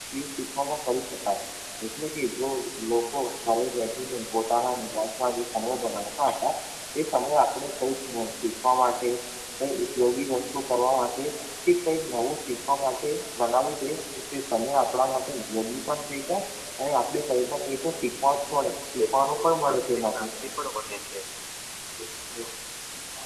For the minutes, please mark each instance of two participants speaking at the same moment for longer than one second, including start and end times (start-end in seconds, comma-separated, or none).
19.0-20.3